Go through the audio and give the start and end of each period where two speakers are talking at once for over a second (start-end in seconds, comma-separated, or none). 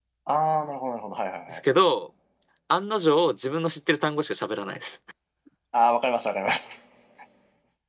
none